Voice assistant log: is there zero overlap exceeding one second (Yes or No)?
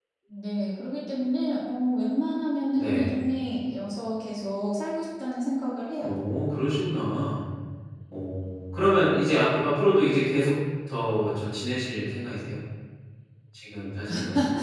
Yes